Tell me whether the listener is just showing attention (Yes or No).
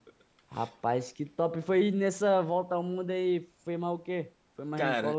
No